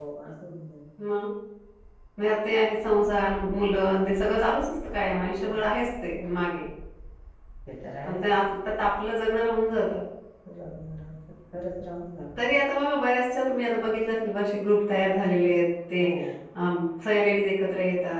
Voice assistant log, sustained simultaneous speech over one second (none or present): none